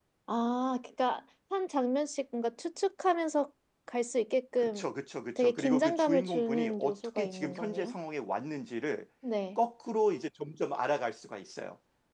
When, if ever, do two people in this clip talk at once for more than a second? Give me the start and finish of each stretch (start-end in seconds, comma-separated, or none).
5.4-8.0